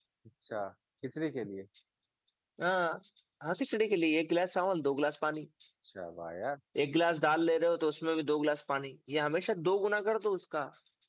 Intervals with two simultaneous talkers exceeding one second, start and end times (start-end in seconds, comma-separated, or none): none